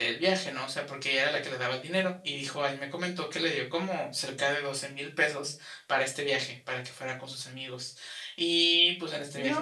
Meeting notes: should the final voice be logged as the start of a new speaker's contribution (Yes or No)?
Yes